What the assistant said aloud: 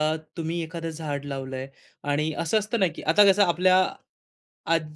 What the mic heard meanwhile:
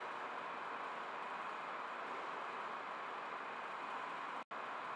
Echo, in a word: none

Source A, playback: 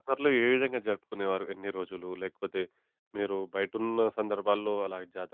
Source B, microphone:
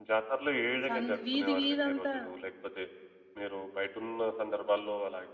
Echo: present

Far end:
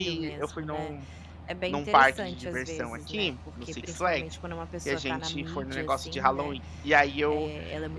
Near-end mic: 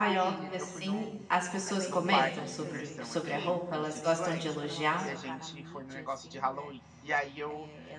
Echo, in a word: present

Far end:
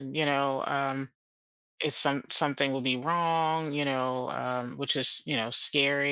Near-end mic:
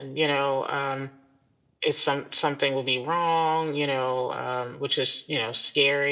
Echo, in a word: present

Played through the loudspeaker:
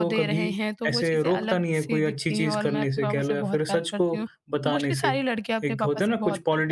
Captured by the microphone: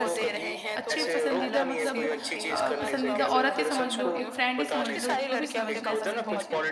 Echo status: present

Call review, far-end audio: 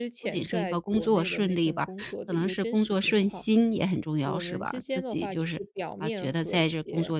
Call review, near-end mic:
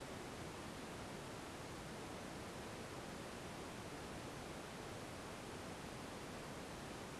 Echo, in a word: none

